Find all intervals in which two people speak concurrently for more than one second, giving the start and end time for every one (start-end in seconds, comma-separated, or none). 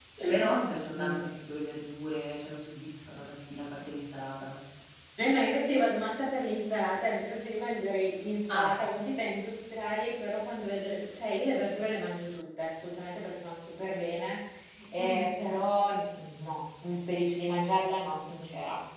none